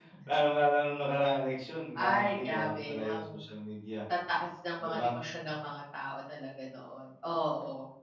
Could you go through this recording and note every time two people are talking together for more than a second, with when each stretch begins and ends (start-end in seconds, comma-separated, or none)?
2.0-3.3